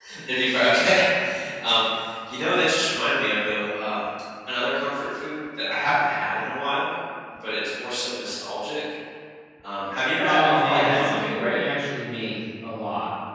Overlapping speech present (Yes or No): Yes